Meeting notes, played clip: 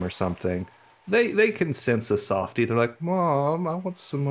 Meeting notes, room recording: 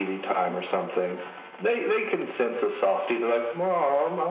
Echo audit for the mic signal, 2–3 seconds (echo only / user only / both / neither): echo only